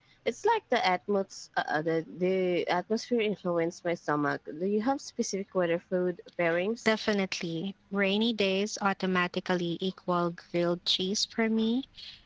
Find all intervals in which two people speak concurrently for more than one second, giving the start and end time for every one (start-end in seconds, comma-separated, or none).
none